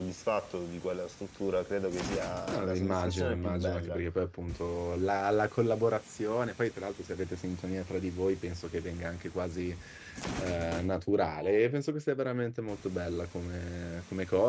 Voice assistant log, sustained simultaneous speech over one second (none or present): present